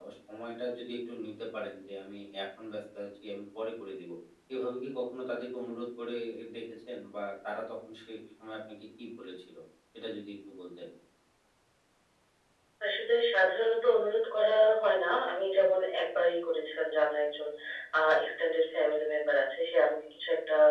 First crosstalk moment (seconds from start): none

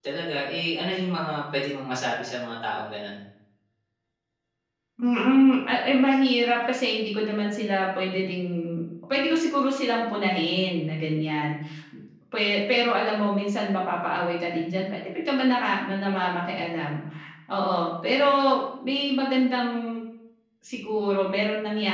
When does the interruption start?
none

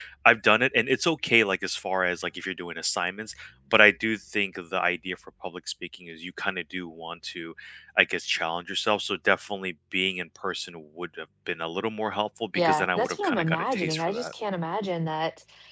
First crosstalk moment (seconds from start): 12.6 s

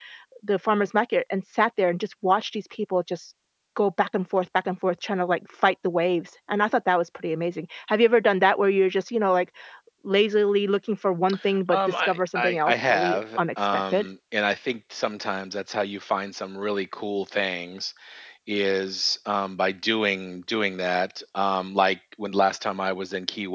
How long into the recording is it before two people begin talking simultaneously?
11.7 s

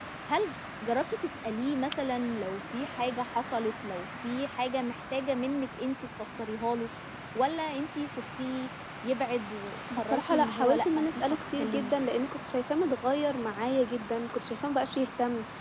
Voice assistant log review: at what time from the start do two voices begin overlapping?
9.9 s

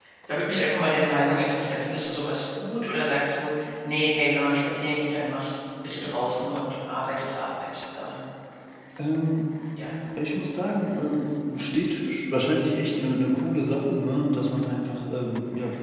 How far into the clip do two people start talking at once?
none

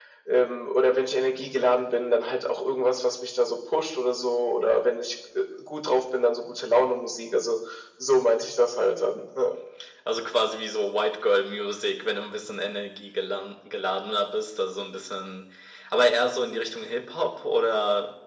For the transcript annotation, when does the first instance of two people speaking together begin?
none

